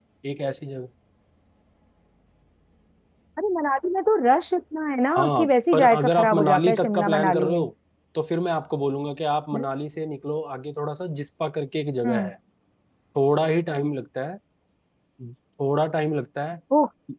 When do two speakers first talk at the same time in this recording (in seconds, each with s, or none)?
5.1 s